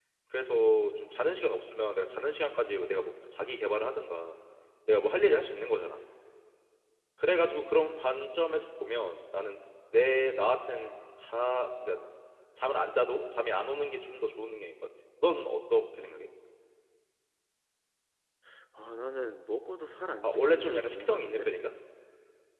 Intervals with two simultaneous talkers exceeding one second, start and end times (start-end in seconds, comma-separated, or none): 20.2-21.5